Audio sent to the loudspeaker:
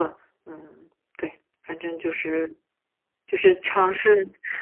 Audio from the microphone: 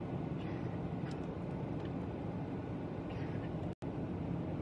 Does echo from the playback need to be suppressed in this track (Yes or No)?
No